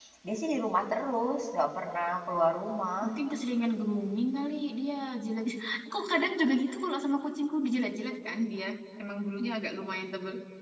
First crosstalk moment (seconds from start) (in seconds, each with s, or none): none